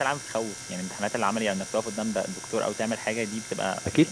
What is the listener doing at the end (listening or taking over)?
taking over